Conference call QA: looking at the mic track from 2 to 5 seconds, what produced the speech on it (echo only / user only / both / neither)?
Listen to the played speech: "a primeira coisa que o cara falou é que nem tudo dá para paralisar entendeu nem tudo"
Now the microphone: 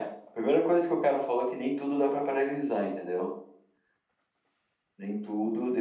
echo only